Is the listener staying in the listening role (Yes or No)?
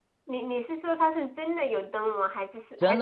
No